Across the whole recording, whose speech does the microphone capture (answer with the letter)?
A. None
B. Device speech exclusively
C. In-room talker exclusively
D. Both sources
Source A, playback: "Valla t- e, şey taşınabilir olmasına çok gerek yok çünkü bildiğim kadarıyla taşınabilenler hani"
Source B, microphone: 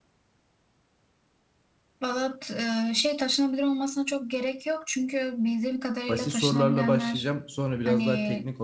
D